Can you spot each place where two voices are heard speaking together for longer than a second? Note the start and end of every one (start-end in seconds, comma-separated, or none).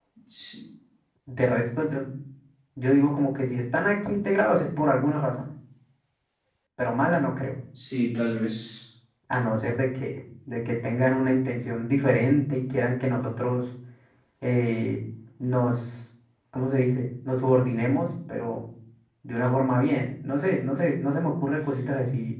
none